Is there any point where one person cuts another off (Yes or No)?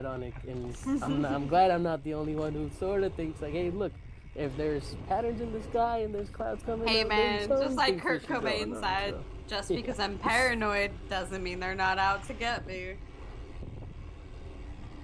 Yes